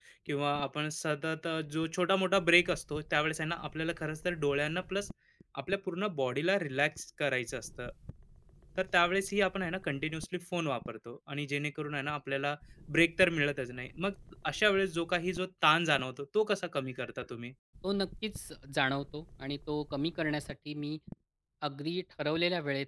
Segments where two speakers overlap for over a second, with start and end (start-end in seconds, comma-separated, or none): none